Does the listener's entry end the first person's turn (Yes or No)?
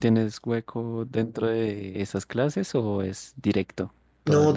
Yes